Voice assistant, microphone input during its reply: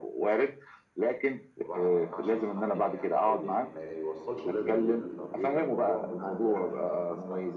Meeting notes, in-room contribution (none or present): present